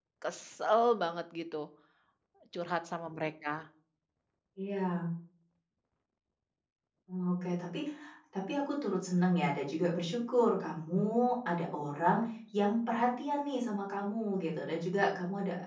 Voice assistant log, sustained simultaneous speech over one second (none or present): none